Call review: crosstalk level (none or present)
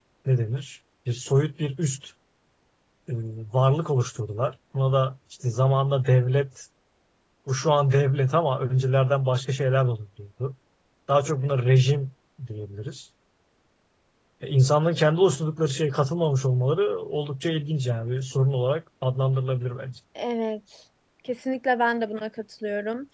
none